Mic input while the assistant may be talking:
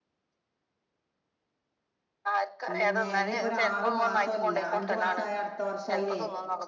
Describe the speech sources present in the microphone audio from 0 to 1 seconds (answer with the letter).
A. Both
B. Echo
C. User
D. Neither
D